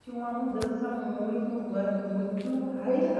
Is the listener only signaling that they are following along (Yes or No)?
No